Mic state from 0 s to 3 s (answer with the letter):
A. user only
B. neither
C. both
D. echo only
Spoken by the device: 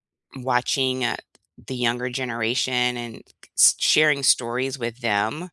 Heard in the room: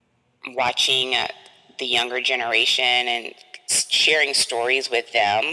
D